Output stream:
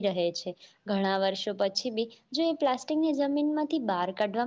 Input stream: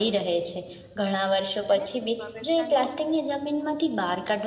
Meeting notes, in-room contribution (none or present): present